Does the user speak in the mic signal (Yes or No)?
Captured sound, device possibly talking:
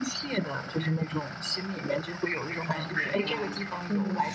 Yes